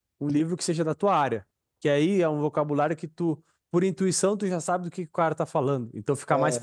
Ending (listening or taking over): listening